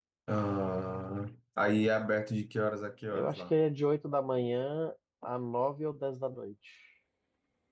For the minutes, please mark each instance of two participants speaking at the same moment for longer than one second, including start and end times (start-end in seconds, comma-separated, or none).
none